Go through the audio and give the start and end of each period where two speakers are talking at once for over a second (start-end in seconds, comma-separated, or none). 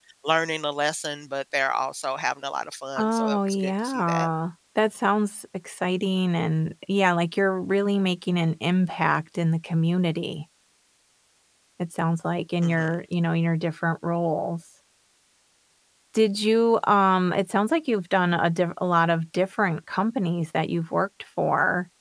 3.0-4.3